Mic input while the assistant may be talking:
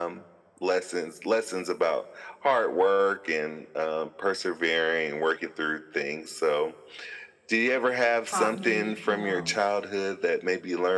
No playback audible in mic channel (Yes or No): No